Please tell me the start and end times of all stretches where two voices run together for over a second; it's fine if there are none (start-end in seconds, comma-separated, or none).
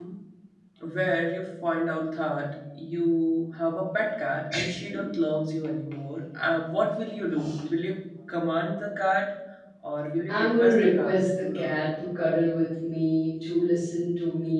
10.3-11.9